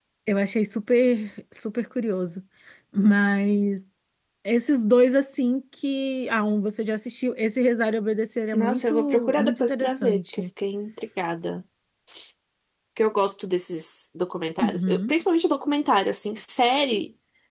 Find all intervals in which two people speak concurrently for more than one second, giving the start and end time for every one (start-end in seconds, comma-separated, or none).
8.5-10.4